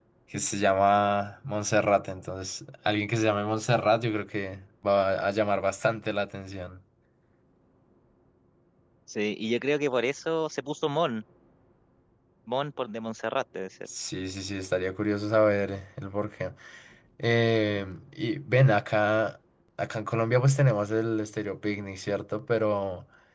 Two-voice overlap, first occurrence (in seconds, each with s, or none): none